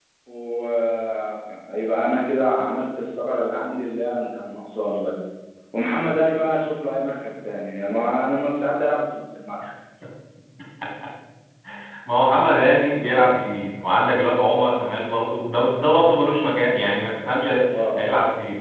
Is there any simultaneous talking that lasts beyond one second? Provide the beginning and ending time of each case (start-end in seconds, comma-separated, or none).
none